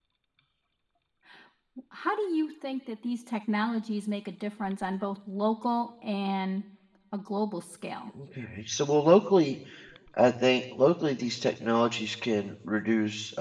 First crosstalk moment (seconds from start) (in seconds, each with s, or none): none